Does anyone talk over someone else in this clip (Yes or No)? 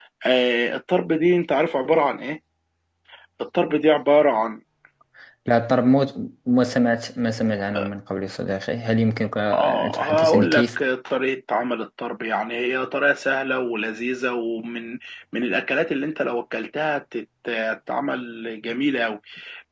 Yes